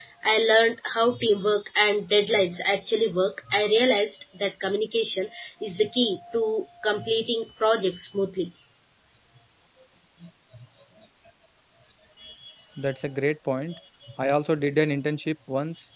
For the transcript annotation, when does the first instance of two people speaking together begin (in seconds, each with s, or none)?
none